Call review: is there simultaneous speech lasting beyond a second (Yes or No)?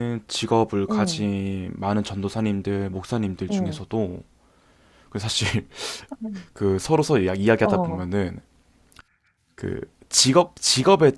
No